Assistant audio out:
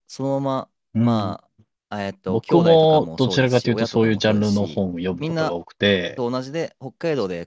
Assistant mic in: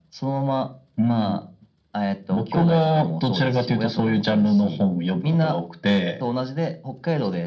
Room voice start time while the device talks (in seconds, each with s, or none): none